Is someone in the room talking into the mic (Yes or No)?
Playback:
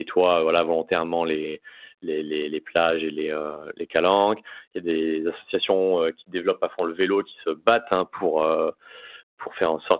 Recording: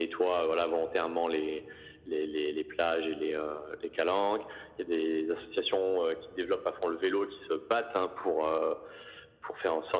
No